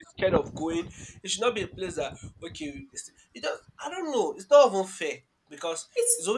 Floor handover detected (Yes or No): No